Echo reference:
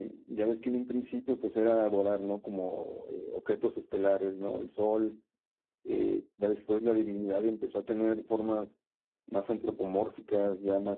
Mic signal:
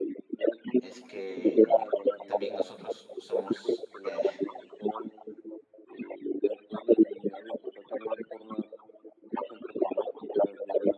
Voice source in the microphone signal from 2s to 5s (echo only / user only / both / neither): both